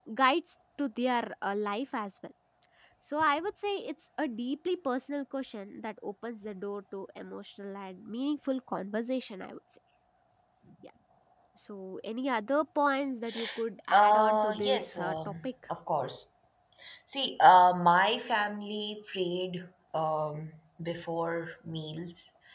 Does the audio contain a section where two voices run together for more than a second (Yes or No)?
Yes